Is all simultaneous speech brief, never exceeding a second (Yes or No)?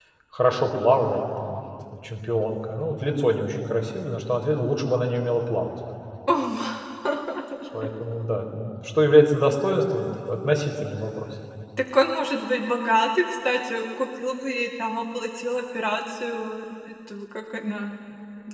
Yes